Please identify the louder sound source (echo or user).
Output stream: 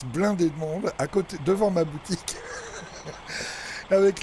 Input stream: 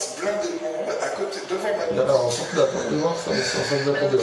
user